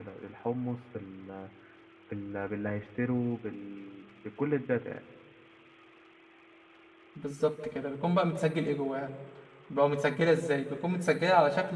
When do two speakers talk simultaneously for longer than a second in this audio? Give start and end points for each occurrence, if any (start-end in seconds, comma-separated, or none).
none